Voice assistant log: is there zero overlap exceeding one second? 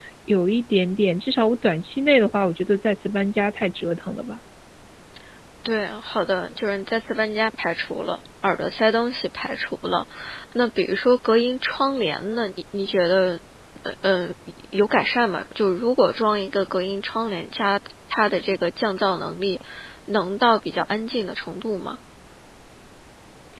Yes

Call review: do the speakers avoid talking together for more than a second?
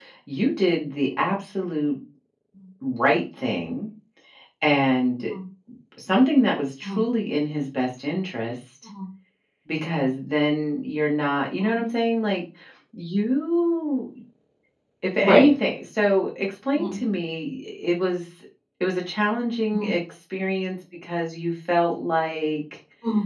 Yes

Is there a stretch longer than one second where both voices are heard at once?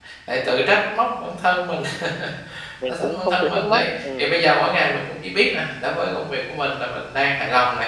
Yes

